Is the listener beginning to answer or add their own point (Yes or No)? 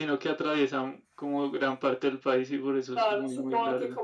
Yes